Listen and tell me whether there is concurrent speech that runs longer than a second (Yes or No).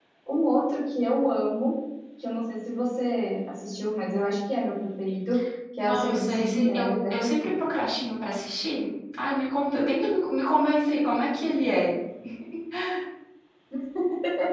Yes